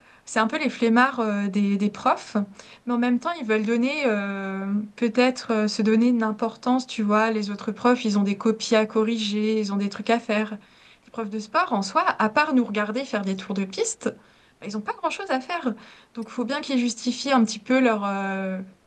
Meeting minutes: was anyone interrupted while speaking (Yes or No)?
No